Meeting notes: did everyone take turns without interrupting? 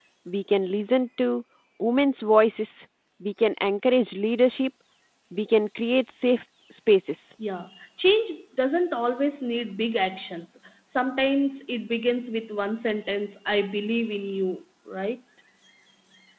Yes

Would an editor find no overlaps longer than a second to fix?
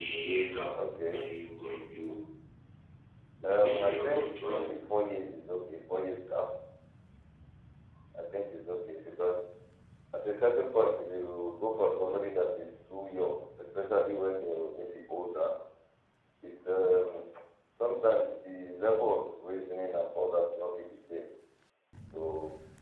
No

